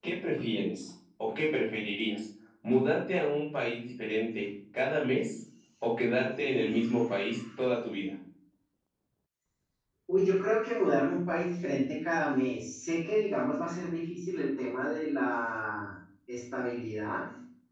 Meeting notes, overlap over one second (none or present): none